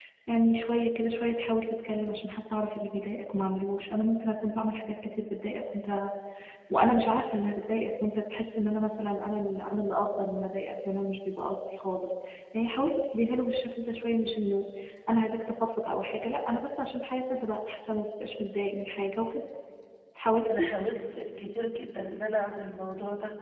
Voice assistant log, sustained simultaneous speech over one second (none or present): none